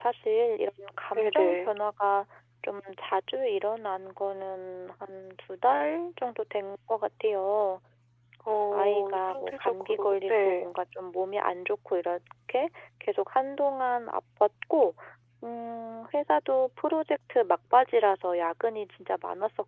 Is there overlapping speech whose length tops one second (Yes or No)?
Yes